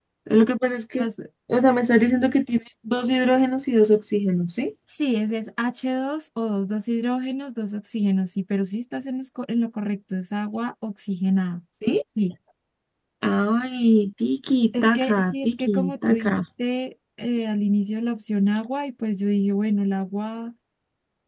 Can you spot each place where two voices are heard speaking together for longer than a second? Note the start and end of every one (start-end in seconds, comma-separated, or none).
14.8-16.3